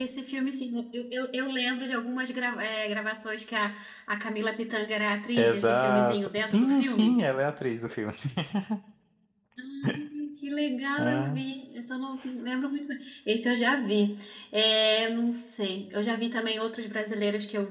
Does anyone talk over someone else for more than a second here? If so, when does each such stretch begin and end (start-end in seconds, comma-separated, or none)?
5.4-7.2